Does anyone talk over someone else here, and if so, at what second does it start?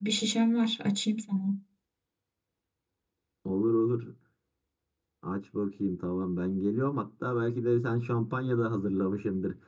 none

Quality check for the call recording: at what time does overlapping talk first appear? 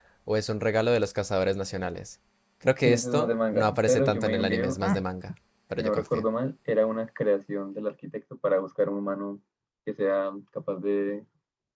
2.8 s

